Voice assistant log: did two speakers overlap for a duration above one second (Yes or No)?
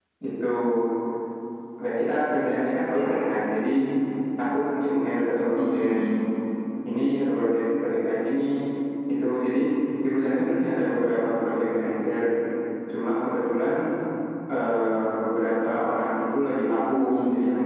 No